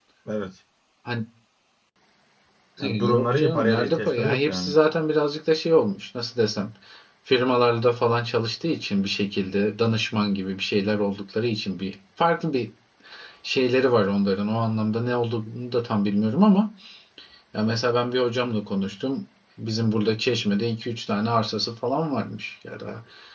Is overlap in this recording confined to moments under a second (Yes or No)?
No